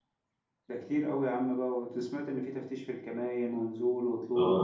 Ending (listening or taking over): taking over